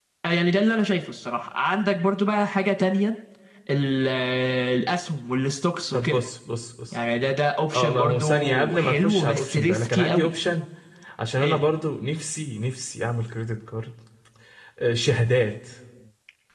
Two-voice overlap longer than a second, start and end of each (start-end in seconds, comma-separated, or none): 7.7-10.3